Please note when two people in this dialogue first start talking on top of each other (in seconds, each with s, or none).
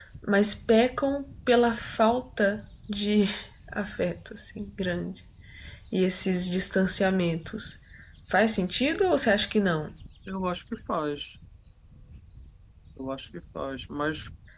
none